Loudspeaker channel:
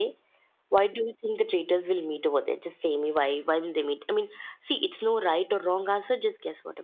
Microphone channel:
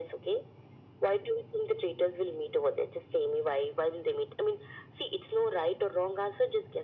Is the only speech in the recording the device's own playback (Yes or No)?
Yes